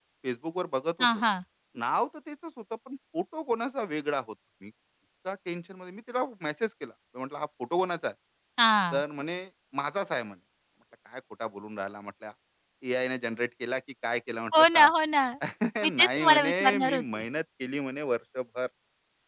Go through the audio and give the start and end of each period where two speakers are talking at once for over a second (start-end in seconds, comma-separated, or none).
15.8-17.2